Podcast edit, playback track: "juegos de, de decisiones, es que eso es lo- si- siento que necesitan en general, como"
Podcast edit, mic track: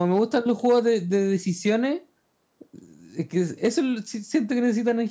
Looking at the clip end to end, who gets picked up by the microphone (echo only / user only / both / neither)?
echo only